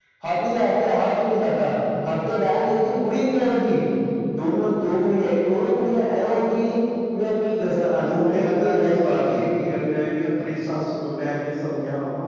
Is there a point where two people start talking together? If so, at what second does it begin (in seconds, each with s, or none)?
8.1 s